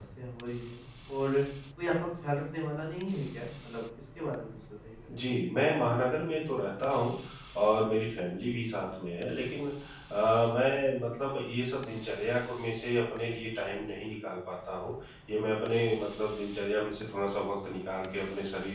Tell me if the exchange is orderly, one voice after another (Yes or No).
Yes